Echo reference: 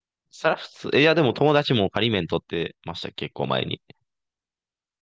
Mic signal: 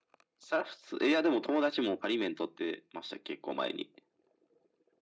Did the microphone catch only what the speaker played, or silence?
Yes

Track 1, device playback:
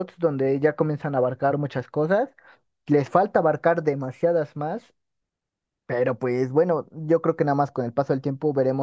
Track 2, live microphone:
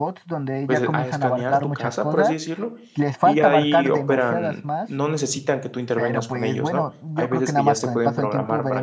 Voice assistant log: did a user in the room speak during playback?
Yes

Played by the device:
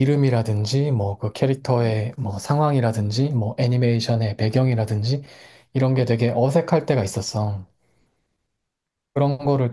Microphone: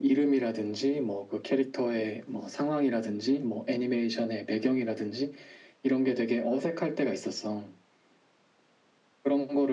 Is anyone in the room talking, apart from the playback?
No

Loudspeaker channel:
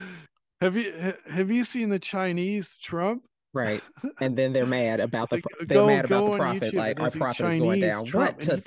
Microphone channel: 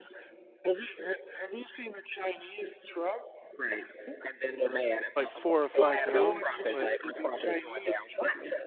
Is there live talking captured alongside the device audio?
Yes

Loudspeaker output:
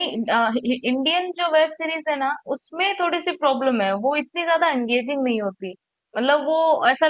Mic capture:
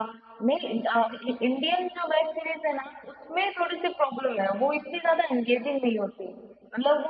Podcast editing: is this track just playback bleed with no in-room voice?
Yes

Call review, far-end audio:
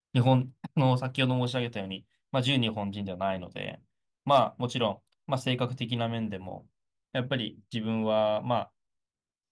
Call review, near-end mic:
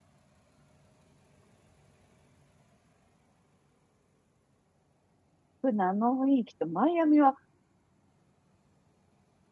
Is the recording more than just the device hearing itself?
Yes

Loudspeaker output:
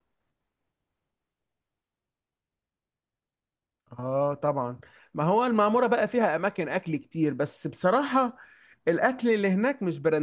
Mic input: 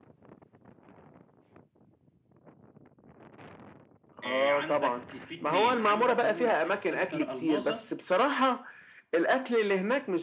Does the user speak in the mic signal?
Yes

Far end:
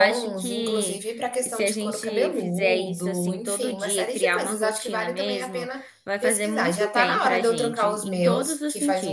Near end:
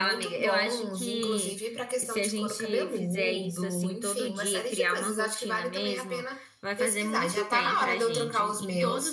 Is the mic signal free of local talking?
Yes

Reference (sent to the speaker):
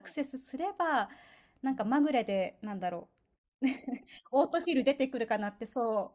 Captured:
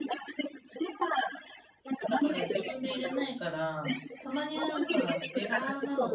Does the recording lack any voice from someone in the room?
No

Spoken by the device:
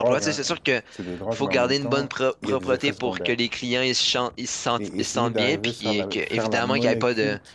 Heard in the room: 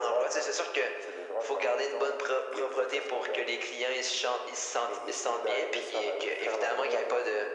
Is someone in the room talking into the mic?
No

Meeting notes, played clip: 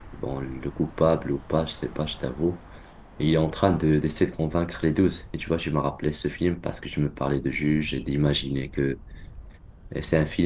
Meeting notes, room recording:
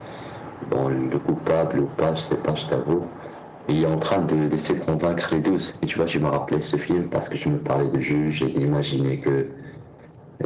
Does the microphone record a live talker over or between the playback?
No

